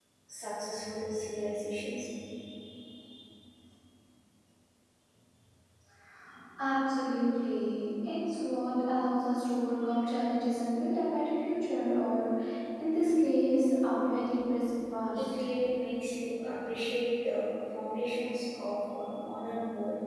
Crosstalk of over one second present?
No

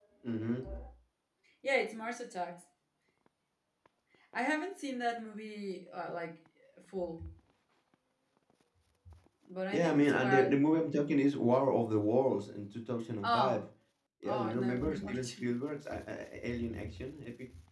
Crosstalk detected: Yes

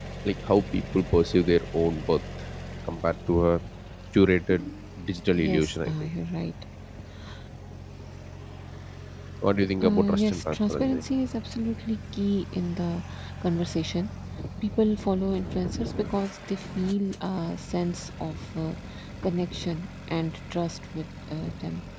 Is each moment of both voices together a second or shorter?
No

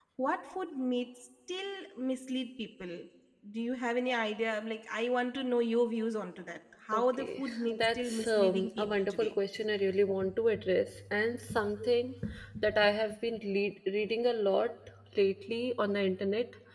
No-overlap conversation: No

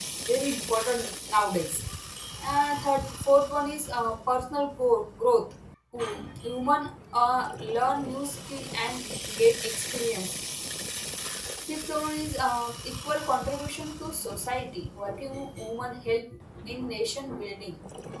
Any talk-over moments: No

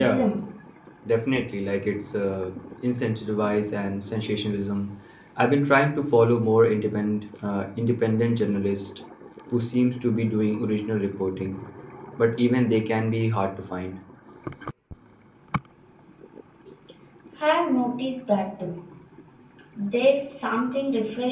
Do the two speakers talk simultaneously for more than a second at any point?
No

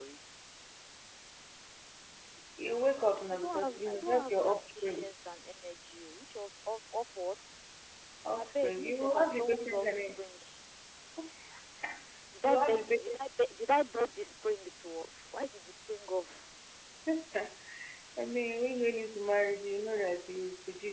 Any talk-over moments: Yes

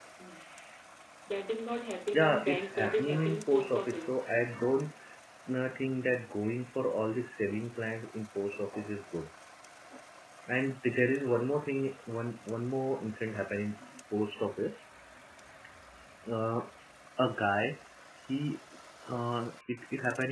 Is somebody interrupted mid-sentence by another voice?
Yes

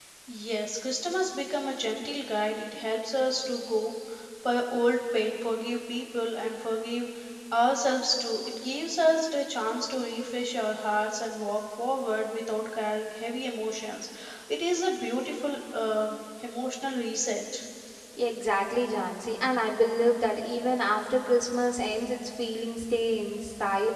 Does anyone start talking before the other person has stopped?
No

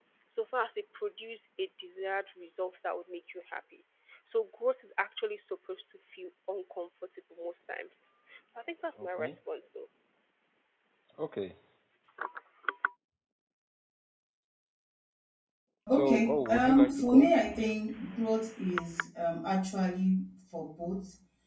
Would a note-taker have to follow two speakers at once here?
Yes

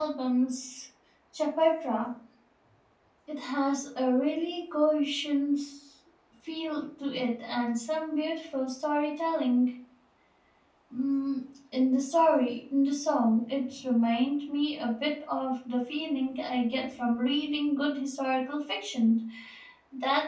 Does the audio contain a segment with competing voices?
No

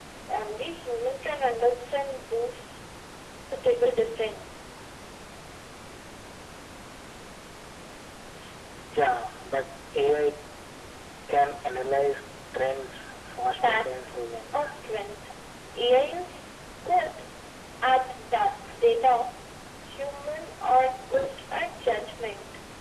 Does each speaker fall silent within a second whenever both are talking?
No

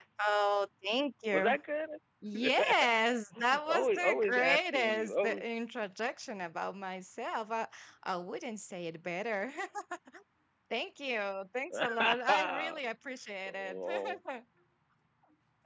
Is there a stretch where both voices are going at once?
Yes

